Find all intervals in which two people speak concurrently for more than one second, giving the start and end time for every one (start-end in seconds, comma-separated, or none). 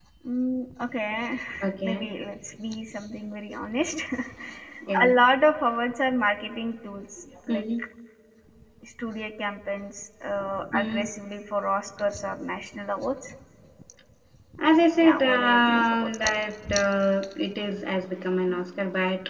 15.0-16.3